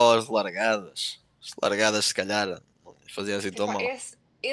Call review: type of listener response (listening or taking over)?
taking over